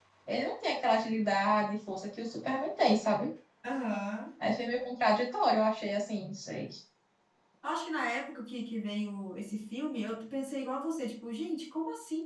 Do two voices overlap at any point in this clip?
No

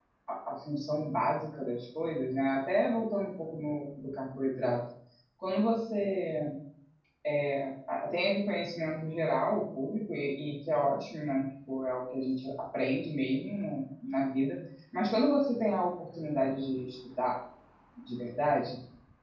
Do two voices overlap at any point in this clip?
No

